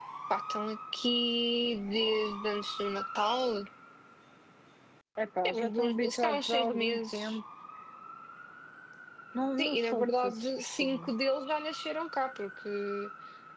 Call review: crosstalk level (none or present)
present